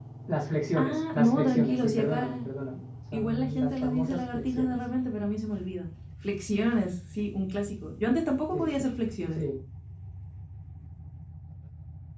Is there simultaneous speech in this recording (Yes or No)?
Yes